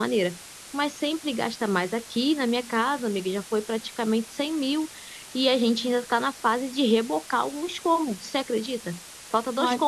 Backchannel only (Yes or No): Yes